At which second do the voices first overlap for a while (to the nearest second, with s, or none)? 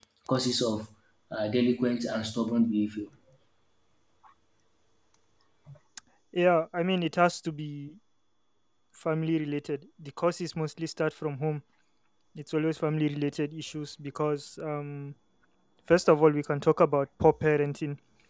none